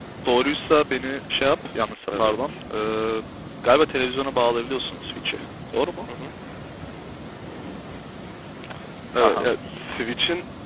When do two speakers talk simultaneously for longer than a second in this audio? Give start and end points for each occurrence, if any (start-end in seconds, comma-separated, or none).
none